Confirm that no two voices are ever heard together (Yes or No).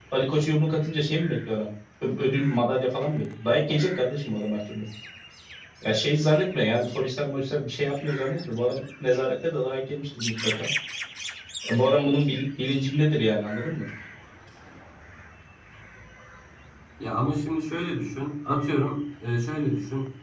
Yes